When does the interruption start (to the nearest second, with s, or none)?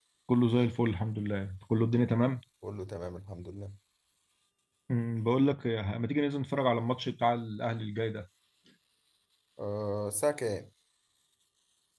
none